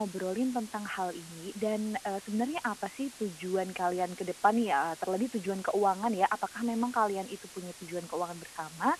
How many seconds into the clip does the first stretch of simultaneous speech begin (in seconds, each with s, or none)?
none